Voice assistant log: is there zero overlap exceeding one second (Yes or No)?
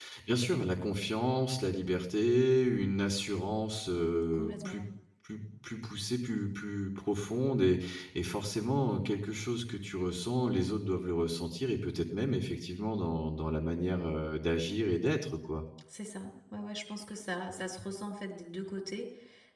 Yes